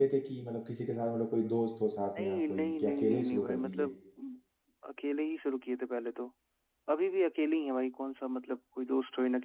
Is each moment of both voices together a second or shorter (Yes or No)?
No